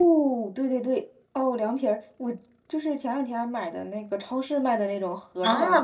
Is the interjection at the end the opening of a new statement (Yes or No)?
Yes